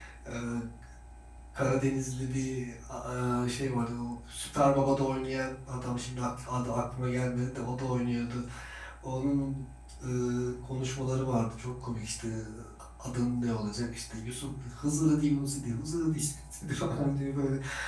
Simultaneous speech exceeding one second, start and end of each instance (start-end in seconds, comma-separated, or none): none